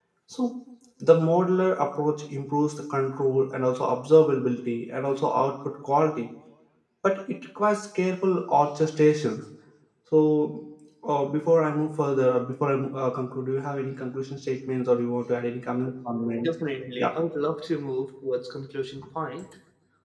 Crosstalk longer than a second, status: none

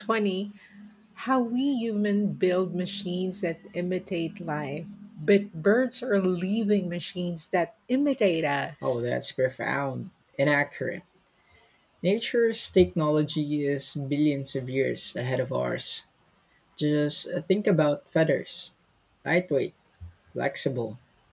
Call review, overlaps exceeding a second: none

